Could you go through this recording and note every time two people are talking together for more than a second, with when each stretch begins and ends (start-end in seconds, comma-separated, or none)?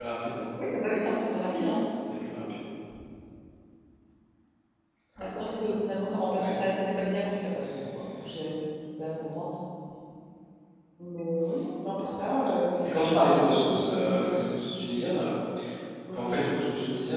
12.8-14.2